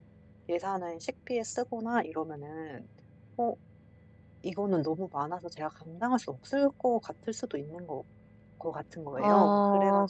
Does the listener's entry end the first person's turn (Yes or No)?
Yes